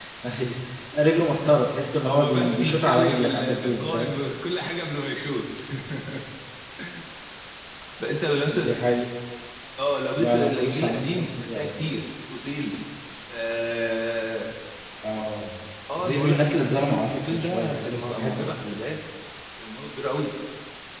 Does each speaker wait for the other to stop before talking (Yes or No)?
No